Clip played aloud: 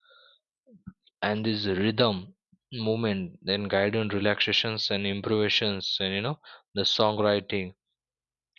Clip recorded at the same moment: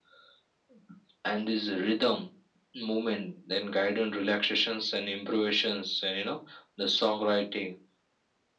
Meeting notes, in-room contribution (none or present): none